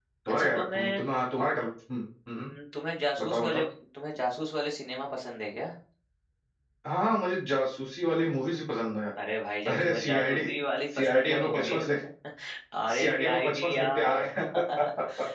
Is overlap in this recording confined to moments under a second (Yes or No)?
No